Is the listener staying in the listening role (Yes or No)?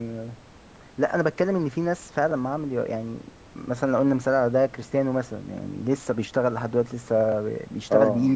No